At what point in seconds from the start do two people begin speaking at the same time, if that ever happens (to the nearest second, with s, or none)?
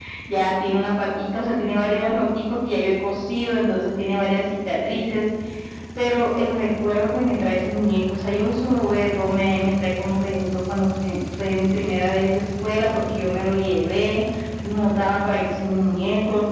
none